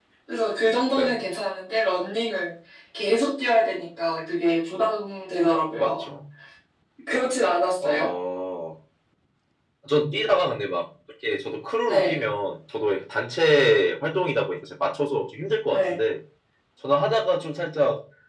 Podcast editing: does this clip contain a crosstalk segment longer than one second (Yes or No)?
No